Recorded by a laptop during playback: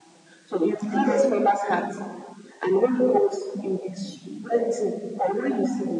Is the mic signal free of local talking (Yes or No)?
No